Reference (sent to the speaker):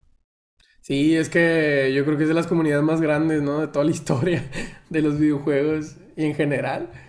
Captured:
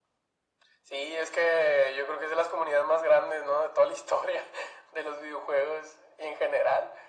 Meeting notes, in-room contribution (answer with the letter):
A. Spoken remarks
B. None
B